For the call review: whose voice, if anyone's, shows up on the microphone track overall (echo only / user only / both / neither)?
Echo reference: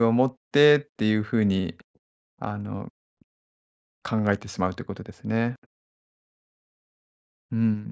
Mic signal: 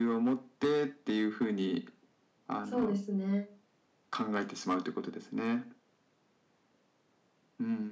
both